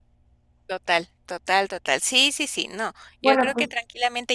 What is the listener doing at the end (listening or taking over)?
listening